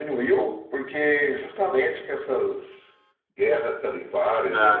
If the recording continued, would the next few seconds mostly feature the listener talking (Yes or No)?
No